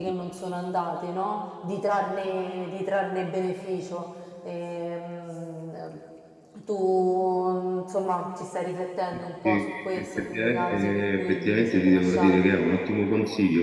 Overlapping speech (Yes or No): Yes